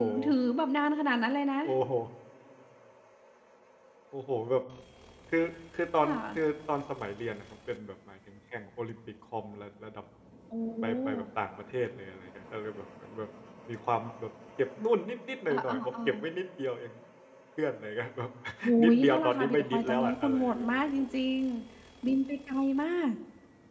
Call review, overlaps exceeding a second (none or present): present